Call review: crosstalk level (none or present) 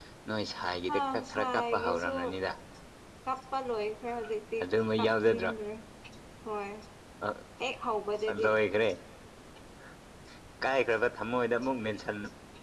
present